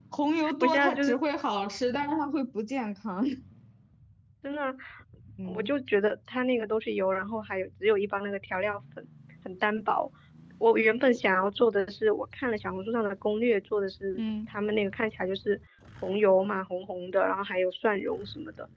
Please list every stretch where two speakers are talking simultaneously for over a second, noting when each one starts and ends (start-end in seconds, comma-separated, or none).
none